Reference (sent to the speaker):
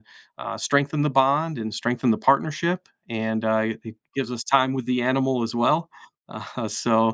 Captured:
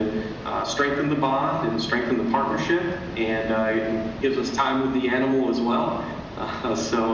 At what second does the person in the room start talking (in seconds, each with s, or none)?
none